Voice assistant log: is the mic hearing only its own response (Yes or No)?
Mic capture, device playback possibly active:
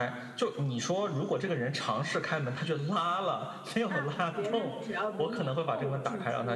No